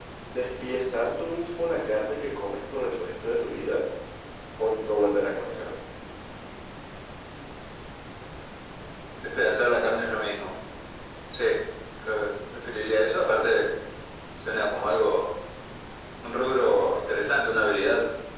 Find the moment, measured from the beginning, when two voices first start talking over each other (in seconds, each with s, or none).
none